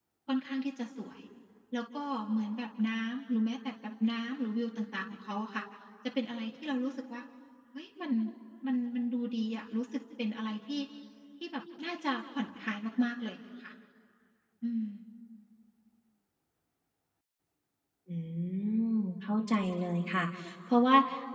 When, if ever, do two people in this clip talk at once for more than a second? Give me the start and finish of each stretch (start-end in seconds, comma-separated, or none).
none